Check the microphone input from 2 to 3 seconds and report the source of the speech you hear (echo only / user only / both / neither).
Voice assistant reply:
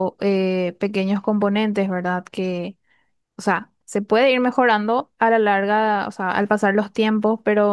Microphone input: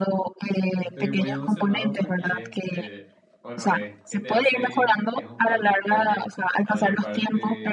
both